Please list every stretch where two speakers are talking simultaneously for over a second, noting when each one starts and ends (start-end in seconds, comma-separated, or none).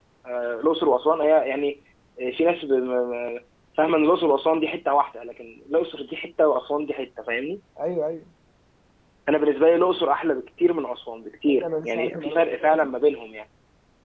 11.5-12.9